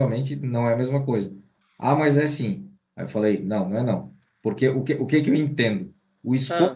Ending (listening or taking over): listening